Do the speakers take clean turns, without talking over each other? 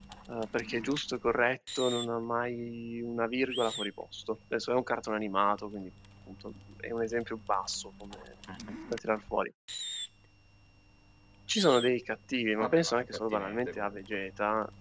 No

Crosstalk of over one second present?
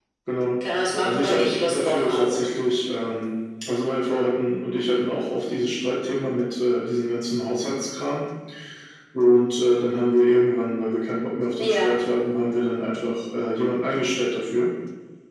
Yes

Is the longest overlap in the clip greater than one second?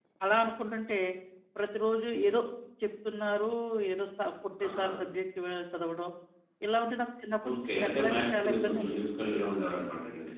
Yes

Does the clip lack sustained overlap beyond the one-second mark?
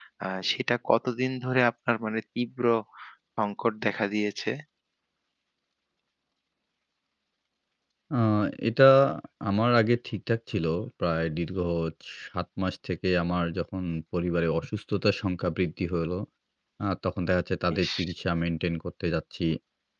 Yes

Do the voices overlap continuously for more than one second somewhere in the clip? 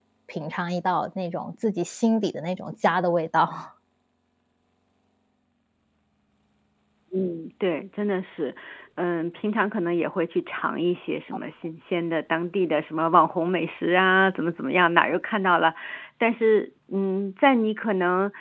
No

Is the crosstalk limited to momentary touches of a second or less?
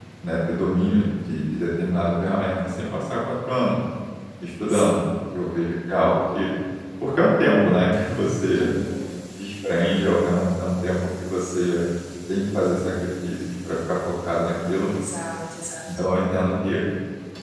Yes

